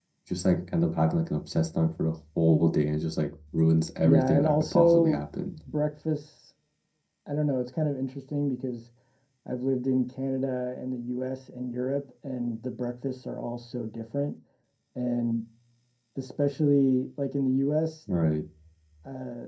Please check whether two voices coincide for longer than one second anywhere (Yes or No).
Yes